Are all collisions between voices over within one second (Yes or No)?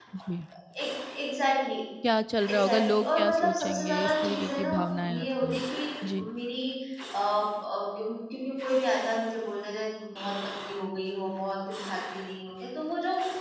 No